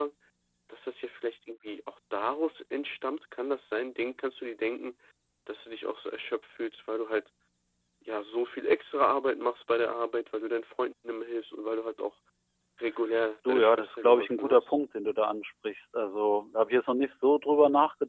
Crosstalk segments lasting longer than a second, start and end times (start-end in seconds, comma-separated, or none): 13.5-14.8